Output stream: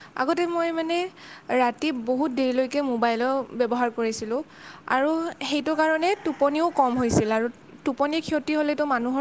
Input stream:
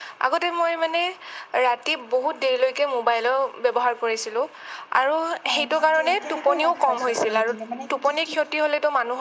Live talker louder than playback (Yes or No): No